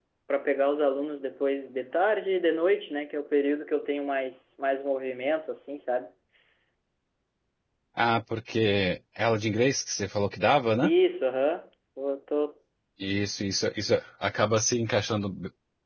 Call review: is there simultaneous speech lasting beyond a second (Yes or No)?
No